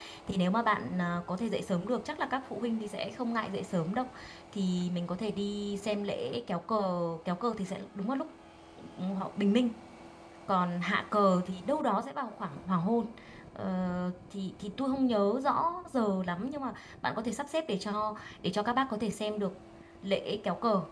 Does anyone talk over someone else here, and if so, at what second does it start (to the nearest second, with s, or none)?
none